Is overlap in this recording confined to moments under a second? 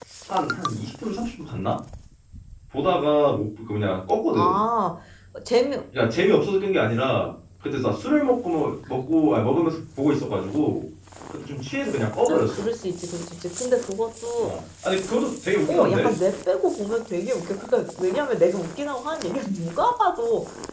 Yes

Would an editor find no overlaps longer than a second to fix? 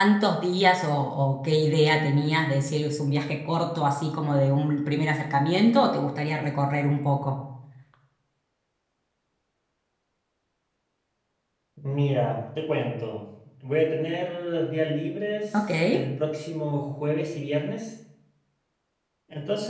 Yes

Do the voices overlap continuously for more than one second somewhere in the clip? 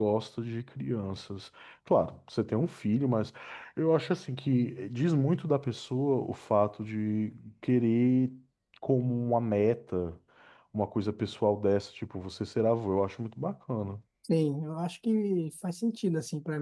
No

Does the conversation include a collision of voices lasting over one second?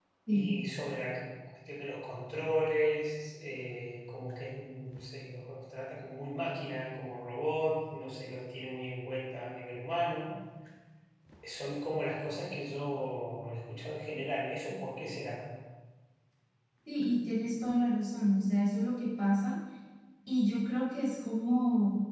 No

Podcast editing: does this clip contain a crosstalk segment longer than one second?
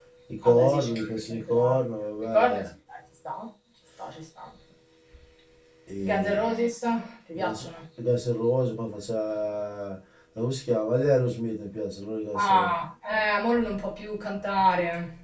Yes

